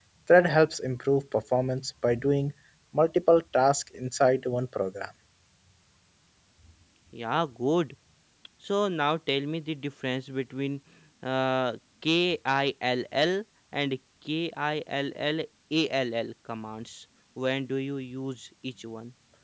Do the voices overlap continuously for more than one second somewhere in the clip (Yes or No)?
No